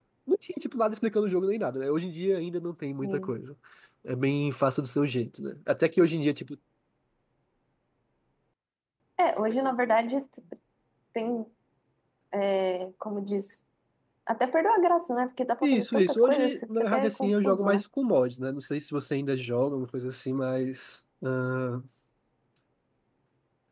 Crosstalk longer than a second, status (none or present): present